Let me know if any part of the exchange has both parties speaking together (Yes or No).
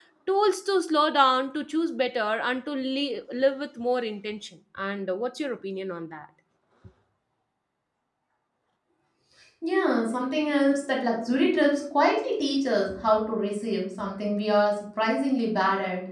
No